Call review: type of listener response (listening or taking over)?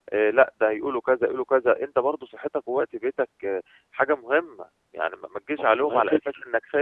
listening